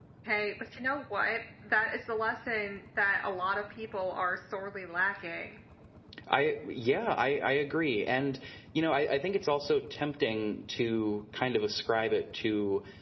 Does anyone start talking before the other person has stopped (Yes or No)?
No